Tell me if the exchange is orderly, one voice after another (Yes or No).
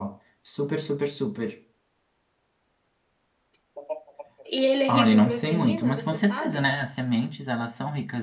No